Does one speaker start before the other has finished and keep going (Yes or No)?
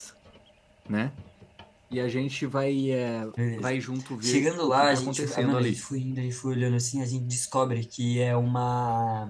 Yes